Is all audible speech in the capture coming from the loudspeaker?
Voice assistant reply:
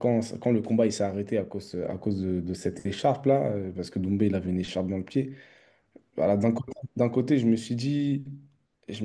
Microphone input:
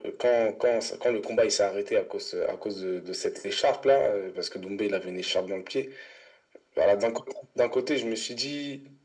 Yes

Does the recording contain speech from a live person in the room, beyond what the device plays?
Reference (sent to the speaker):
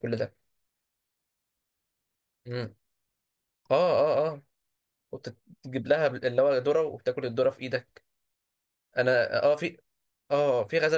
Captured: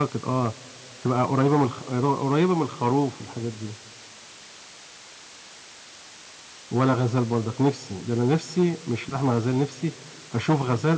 Yes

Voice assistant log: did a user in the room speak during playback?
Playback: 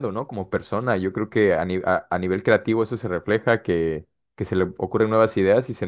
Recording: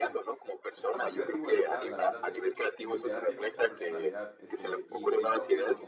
Yes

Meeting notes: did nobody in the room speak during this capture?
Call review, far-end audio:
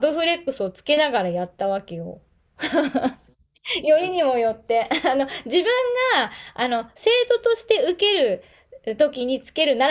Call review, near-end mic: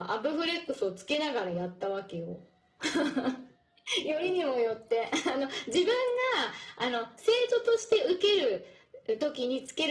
Yes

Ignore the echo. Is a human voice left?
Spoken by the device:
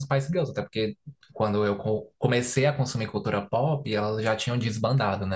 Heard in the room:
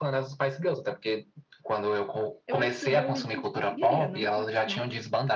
Yes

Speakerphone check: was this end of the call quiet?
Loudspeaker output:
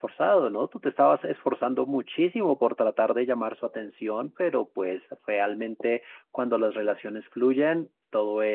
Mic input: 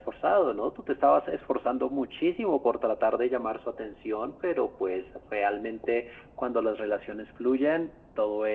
Yes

